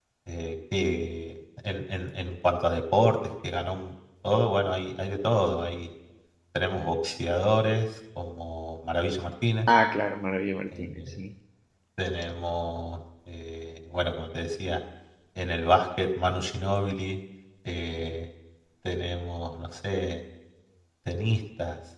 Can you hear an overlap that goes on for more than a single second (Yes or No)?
No